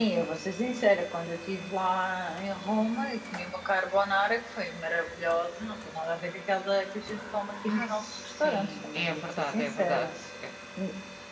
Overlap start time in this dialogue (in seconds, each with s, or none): 7.7 s